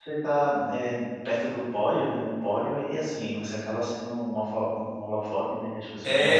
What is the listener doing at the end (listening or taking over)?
taking over